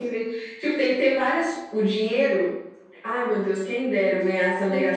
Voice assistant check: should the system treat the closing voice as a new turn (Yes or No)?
Yes